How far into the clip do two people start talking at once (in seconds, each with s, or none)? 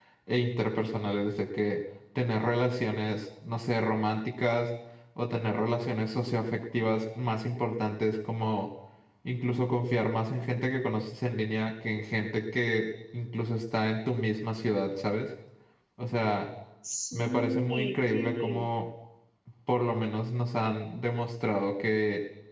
17.1 s